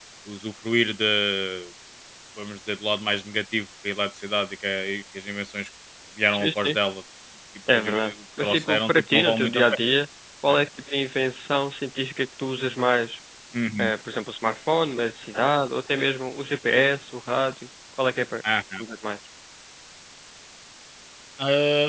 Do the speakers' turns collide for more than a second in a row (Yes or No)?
Yes